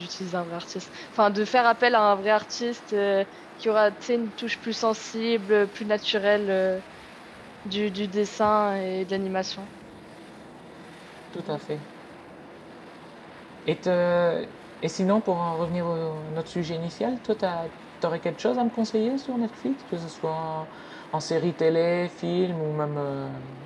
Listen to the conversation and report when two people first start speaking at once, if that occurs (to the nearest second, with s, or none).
none